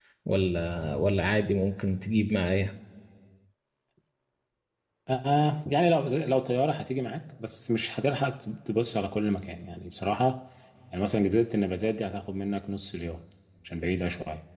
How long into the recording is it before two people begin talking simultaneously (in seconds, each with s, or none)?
none